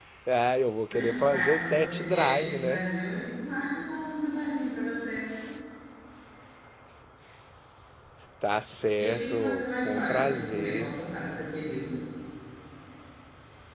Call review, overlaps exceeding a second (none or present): present